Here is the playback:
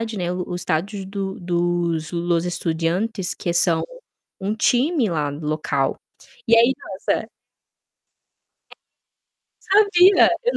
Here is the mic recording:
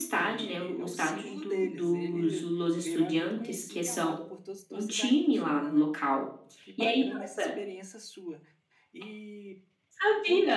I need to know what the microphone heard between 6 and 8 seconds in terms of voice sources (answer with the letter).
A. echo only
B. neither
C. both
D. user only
C